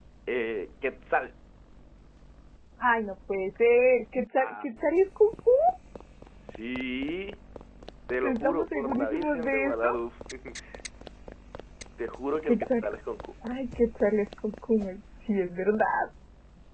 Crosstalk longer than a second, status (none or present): present